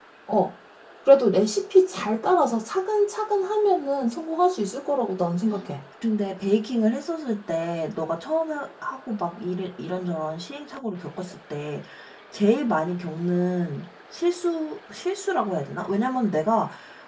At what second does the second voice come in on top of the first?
none

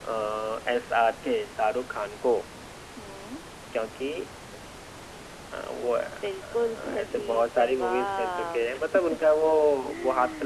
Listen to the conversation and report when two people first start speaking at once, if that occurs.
6.2 s

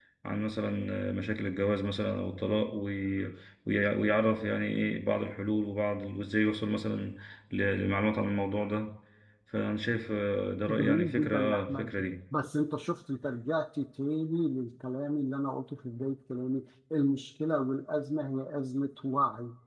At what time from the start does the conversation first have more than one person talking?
10.7 s

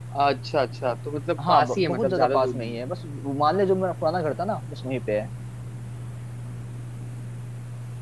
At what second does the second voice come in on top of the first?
1.4 s

